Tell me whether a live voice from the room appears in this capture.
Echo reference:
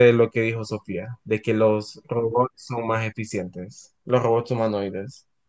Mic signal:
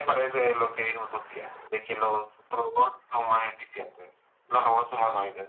No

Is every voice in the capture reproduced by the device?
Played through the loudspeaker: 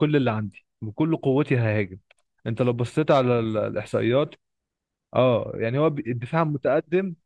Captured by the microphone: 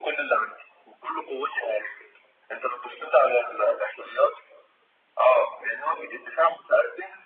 Yes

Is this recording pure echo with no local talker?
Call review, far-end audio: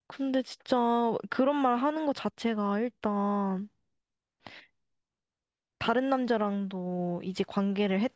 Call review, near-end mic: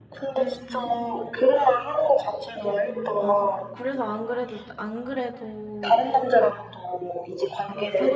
No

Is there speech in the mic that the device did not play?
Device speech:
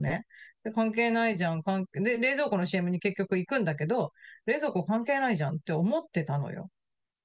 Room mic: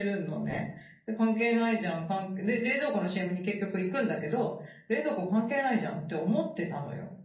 No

